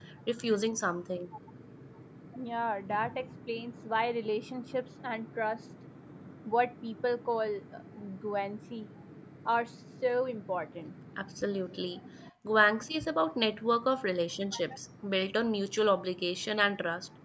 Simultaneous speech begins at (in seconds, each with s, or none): none